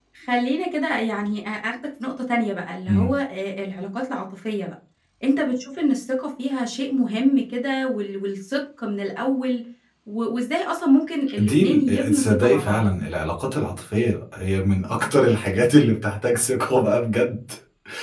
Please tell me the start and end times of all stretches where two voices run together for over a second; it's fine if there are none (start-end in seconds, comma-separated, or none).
11.4-12.8